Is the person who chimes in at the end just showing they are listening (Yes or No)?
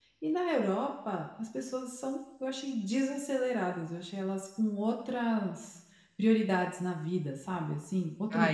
No